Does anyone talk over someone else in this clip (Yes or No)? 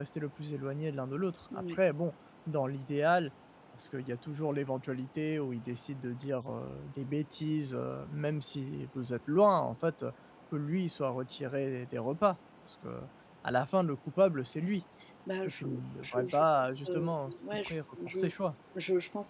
Yes